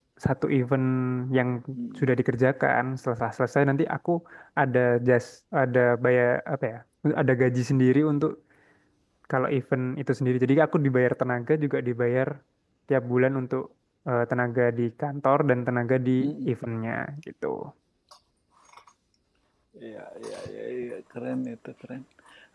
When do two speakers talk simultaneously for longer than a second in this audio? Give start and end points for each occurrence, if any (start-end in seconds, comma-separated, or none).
none